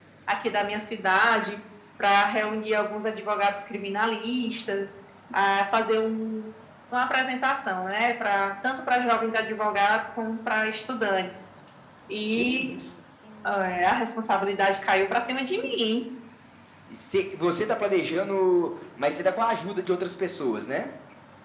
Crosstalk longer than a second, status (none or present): none